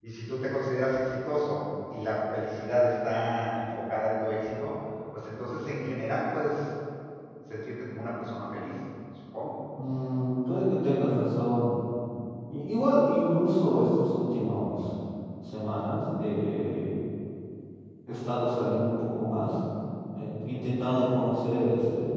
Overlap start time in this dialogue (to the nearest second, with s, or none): none